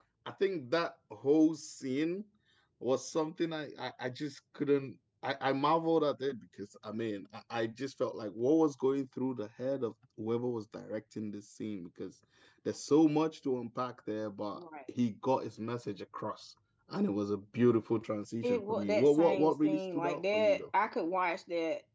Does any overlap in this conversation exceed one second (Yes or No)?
Yes